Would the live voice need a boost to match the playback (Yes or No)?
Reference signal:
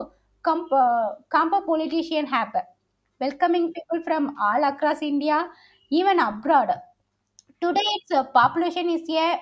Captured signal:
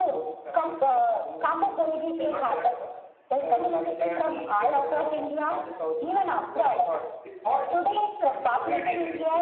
Yes